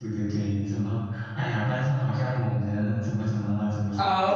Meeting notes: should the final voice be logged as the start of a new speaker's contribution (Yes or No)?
Yes